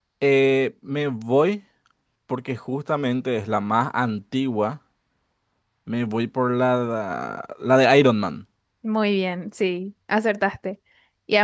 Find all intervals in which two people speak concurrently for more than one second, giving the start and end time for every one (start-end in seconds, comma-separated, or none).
none